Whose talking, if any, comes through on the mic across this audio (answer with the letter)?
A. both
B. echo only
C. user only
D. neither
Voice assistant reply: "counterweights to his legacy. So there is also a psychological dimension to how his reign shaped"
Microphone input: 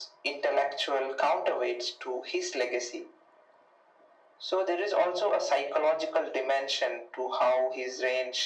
B